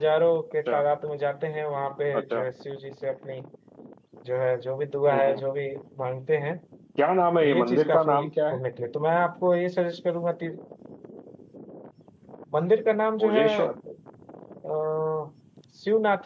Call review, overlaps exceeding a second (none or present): present